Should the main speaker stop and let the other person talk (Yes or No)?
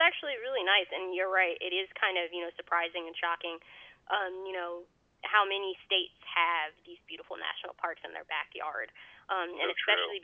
No